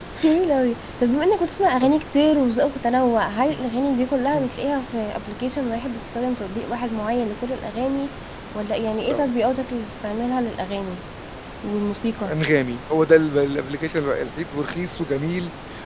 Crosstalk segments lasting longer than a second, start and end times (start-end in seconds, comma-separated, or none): none